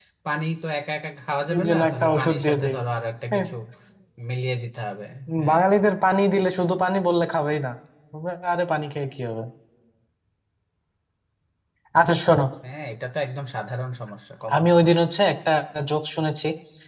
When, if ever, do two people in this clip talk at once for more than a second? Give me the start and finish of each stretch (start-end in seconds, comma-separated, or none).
1.5-2.8